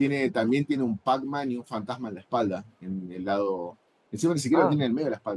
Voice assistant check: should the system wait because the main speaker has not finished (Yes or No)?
Yes